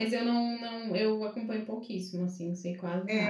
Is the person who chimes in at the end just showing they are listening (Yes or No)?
No